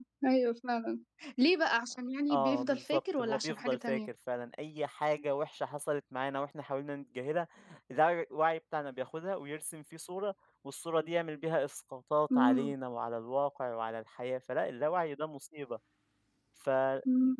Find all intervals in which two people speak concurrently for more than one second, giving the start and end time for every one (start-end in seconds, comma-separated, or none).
2.3-4.0